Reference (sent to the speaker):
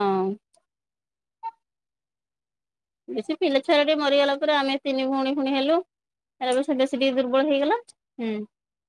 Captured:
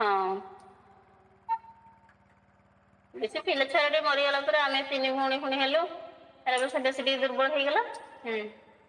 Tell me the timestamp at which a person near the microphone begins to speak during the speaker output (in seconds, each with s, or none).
none